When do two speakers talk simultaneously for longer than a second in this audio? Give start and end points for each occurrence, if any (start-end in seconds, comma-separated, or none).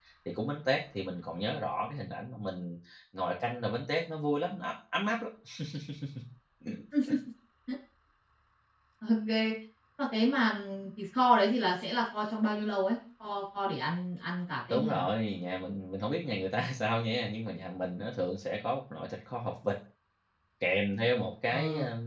none